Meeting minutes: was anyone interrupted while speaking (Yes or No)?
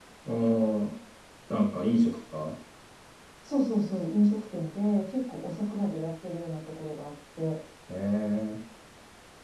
No